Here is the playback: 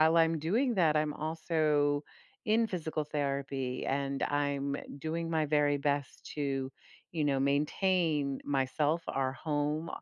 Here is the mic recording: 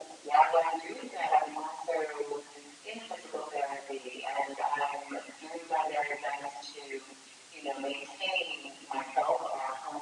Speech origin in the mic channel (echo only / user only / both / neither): echo only